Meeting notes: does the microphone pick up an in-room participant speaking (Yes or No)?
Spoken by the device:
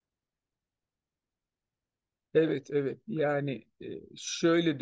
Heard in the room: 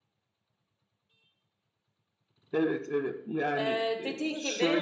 Yes